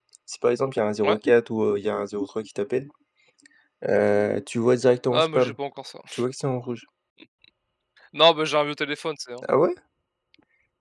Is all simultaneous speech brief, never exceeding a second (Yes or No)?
Yes